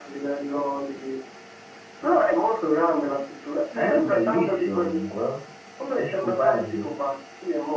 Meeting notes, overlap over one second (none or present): present